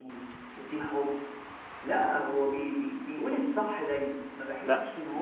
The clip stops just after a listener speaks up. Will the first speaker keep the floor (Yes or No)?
No